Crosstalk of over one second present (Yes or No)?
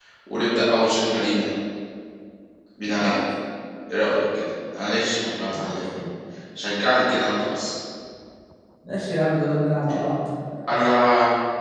No